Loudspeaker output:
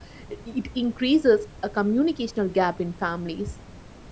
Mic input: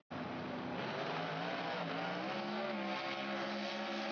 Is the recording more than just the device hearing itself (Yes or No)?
No